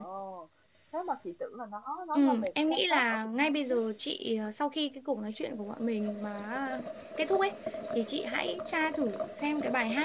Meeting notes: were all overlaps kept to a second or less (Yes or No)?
No